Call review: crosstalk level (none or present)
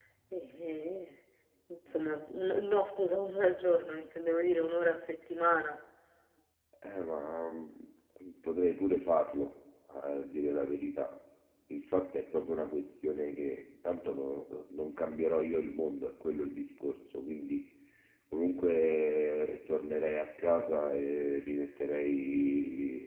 none